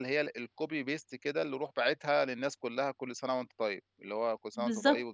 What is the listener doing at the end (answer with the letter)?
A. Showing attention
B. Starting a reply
B